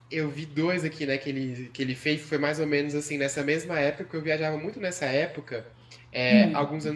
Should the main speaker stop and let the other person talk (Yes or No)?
No